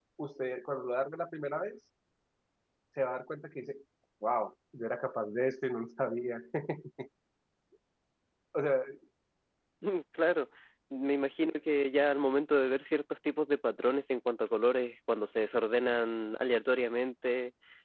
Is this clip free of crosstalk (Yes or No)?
Yes